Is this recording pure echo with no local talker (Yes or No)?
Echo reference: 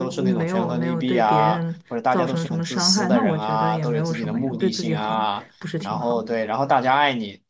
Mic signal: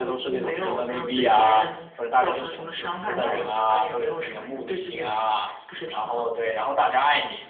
Yes